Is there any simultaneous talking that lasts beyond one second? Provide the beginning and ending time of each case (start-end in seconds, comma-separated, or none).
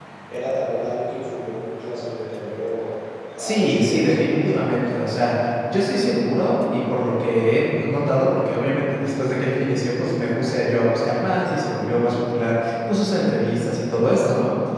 3.4-4.9